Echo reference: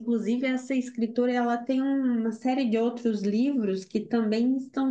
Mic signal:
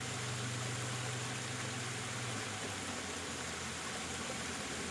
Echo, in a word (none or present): none